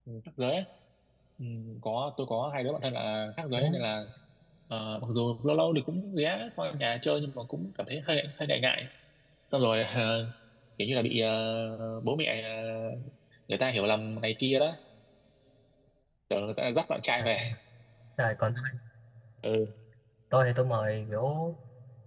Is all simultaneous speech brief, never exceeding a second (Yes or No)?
Yes